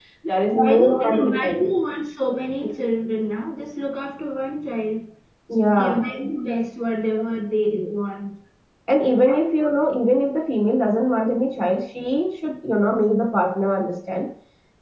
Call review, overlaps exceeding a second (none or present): present